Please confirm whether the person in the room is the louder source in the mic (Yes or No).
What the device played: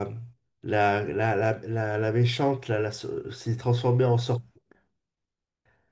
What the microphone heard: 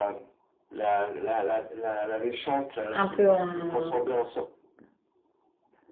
Yes